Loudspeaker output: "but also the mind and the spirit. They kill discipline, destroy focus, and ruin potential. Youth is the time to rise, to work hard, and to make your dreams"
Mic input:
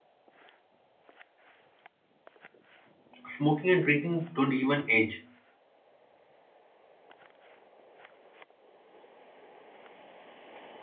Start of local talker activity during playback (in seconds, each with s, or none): 3.2 s